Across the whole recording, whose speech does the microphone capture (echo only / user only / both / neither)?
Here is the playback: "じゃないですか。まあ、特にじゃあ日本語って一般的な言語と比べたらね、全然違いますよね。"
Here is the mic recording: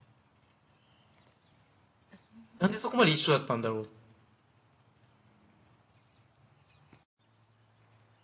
user only